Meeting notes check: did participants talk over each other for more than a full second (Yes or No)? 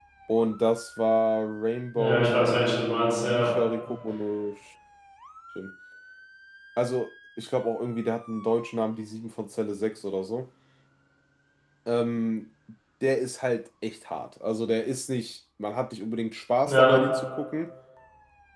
Yes